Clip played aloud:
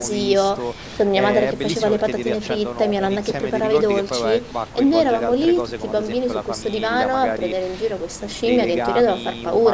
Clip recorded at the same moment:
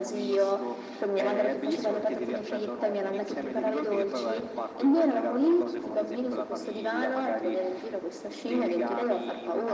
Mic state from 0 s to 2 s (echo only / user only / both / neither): echo only